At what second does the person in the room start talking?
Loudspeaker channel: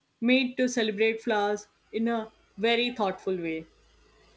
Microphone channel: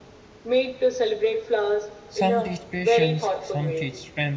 2.1 s

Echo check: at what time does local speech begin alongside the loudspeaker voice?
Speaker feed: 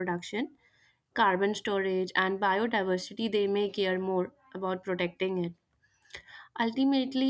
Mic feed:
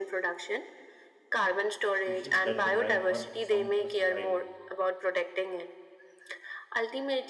1.9 s

